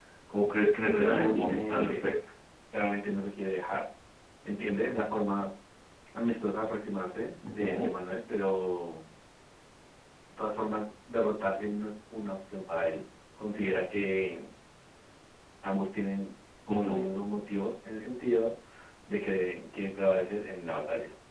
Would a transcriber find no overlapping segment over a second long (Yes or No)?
No